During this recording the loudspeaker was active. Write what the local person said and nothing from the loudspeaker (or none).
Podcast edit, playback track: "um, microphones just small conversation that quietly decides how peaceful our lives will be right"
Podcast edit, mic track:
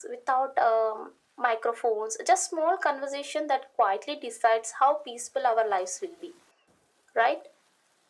none